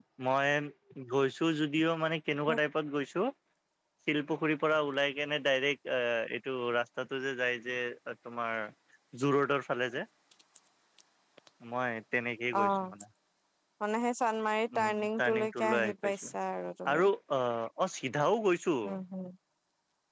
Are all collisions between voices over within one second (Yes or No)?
No